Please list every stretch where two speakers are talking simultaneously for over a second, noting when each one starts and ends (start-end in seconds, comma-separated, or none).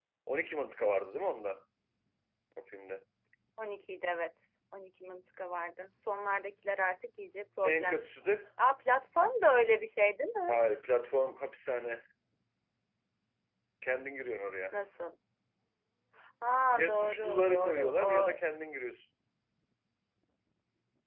16.8-18.4